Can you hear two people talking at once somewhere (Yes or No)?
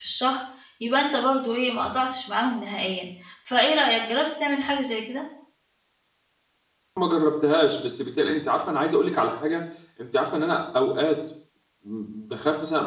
No